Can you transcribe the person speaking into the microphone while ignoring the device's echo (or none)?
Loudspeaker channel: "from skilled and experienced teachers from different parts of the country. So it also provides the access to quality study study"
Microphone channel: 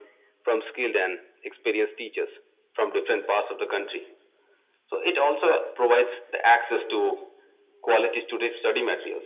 none